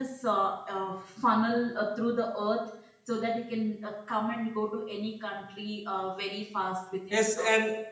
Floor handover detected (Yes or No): Yes